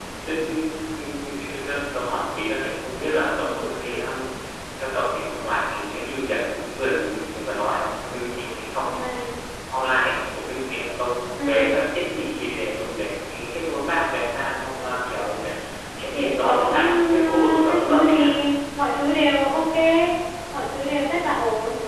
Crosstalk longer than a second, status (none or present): present